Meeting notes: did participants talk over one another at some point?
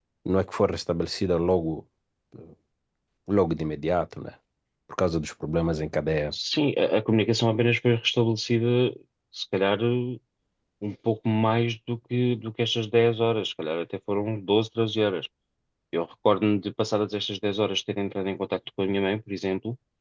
No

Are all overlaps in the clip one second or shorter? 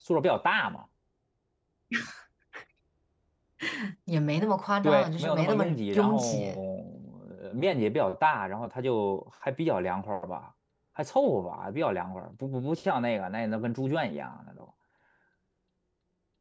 No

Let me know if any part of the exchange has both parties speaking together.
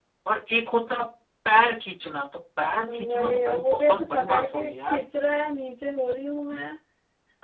Yes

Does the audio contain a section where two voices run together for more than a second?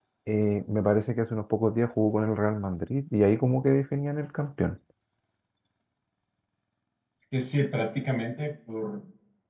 No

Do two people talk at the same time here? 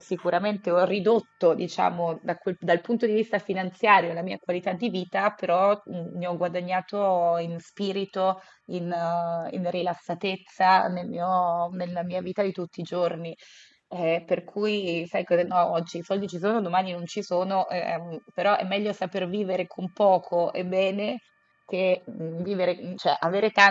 No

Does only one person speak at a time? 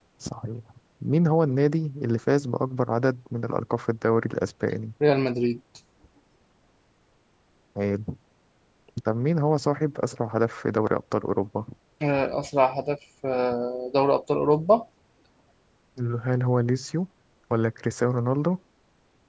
Yes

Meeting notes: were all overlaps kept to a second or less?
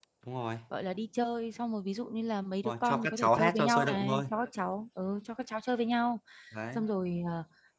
No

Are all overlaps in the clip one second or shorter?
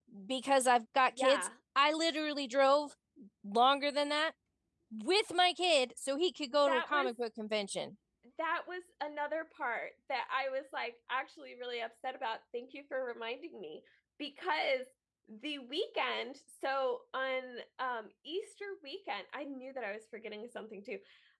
Yes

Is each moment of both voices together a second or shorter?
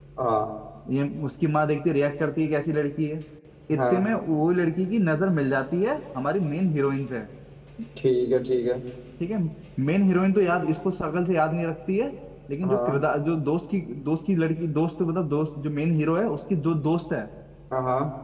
Yes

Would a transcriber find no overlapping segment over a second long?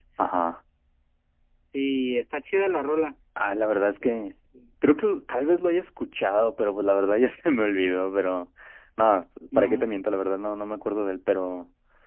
Yes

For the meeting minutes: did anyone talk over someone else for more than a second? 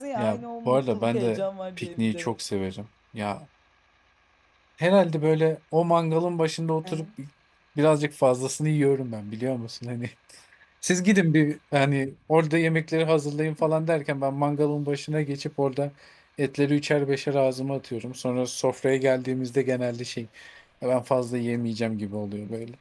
Yes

